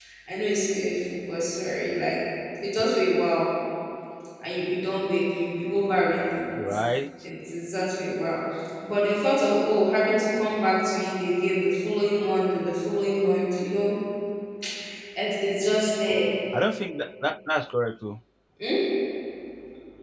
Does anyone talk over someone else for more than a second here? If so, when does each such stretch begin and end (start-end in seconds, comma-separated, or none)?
none